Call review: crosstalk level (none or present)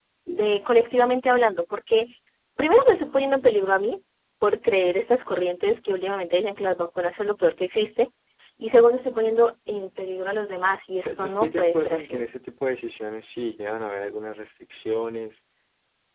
present